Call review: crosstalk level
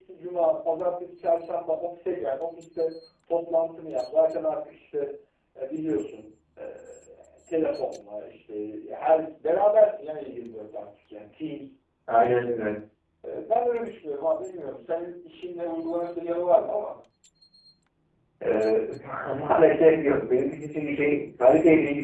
none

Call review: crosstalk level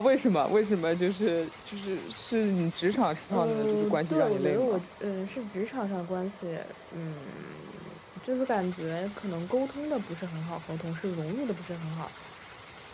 present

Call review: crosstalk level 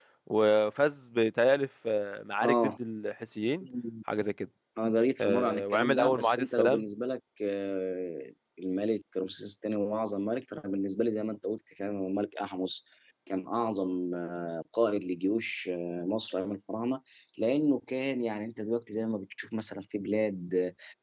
present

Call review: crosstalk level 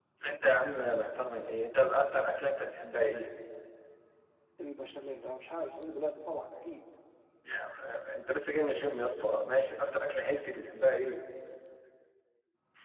none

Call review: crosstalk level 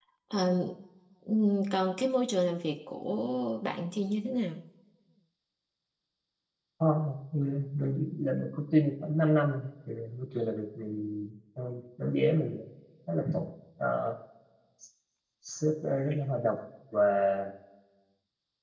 none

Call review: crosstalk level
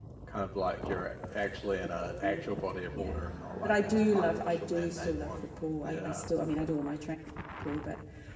present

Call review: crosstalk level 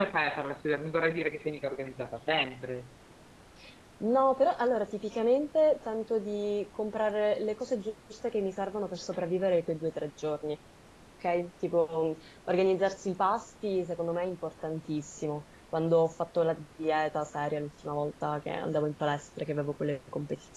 none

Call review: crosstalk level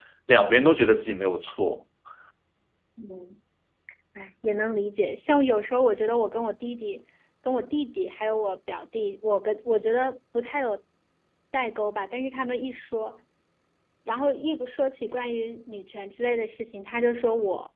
none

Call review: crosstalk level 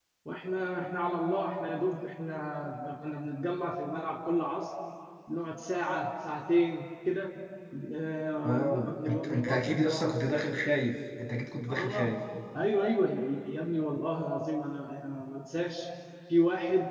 present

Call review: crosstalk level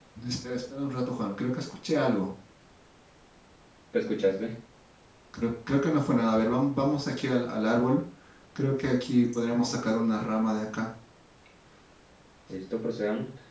none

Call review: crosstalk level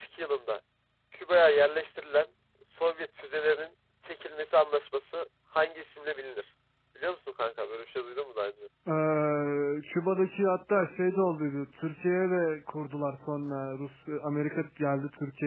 none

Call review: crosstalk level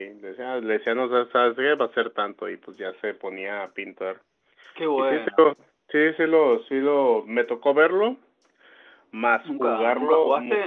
present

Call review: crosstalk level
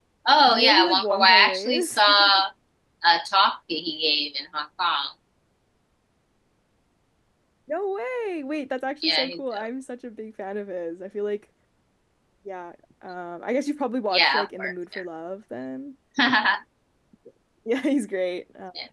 present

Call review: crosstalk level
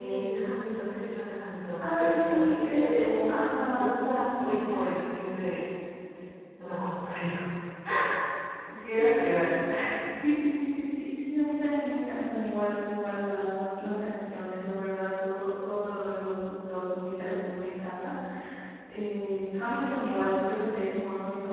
present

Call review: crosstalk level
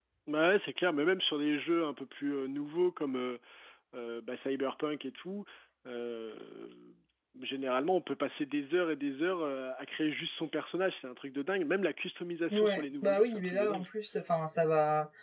present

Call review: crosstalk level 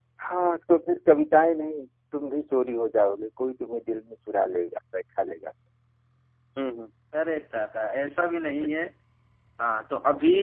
none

